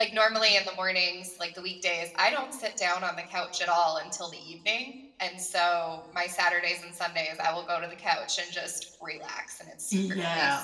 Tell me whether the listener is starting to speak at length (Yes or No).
Yes